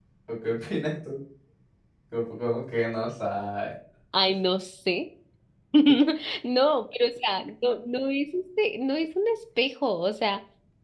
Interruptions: none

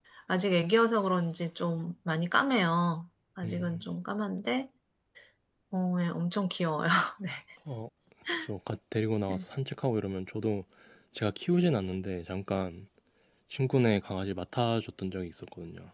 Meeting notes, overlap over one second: none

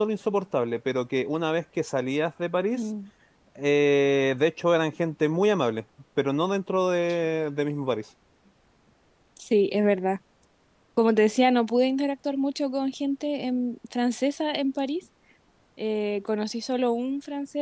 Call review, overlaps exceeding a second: none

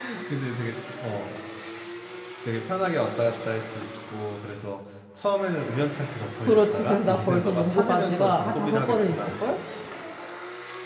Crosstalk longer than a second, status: present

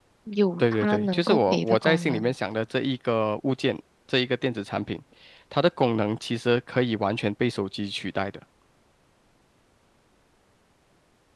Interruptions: present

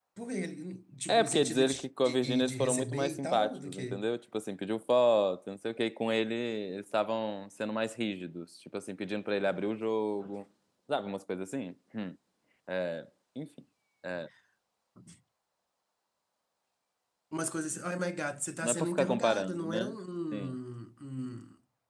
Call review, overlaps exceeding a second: present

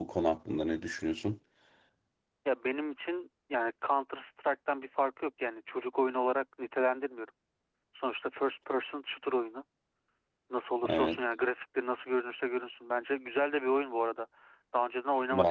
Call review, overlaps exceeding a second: none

